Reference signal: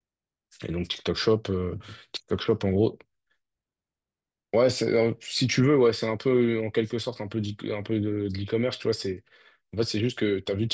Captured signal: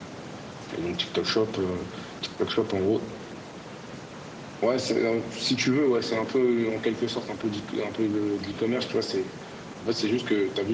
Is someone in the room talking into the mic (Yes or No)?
No